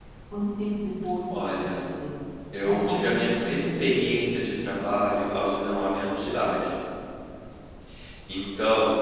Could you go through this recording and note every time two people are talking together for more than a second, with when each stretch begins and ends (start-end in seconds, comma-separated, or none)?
2.6-4.6